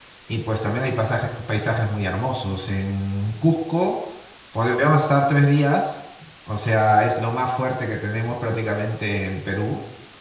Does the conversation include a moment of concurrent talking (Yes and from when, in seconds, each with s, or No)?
No